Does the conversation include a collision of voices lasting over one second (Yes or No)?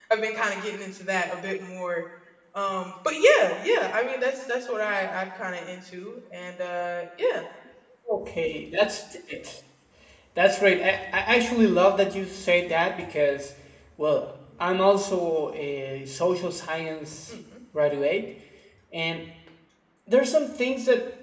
No